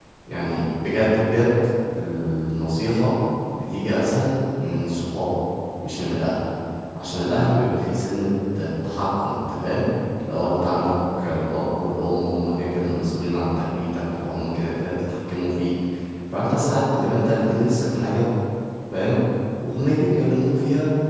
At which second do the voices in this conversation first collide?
none

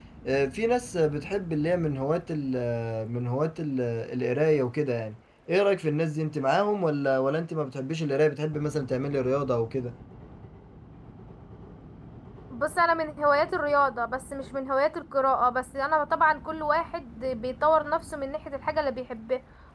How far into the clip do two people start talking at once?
none

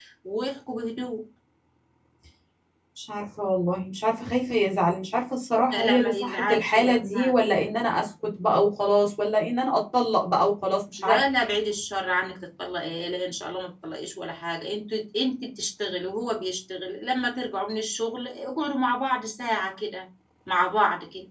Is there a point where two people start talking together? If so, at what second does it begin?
6 s

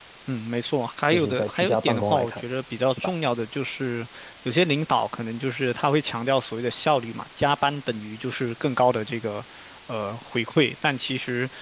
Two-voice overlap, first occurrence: 1 s

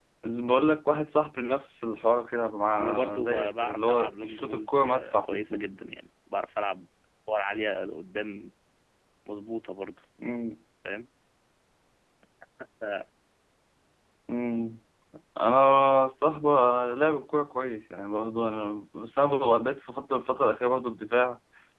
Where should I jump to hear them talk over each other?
3 s

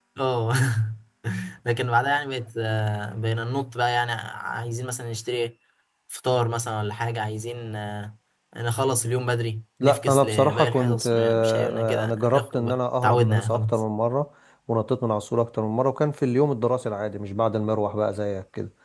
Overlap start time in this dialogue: 10 s

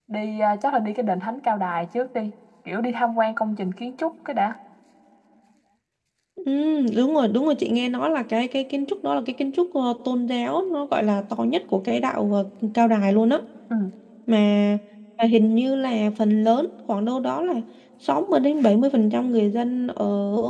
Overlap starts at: none

